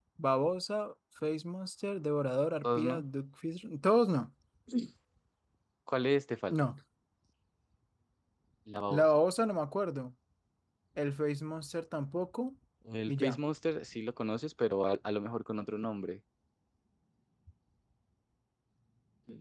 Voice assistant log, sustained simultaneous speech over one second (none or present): none